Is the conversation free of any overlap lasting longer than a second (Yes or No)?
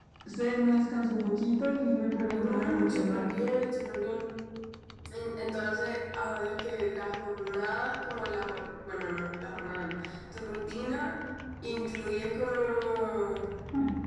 No